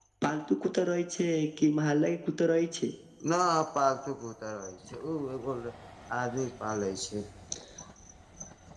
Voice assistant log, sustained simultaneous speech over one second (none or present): none